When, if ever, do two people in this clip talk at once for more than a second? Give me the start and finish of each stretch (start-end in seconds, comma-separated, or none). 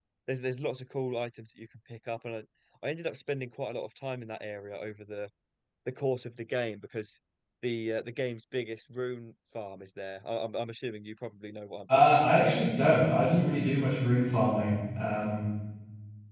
none